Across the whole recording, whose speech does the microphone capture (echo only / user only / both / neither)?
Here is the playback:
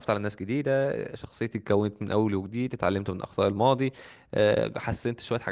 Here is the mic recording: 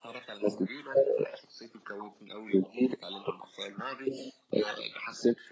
echo only